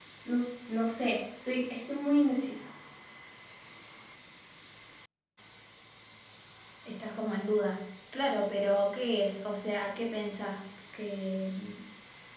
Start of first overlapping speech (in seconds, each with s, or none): none